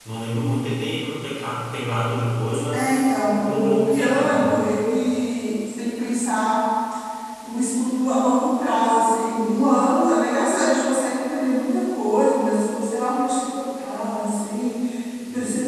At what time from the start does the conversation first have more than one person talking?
2.5 s

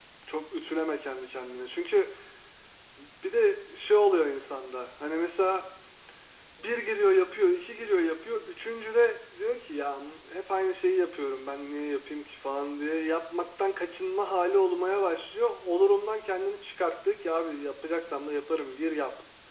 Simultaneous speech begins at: none

